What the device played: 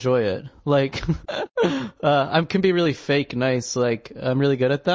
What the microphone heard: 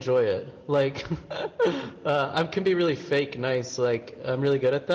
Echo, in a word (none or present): present